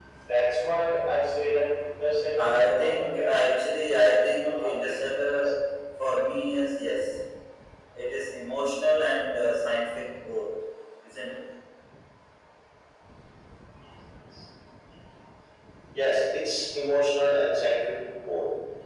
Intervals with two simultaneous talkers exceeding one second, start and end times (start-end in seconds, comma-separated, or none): 2.4-3.7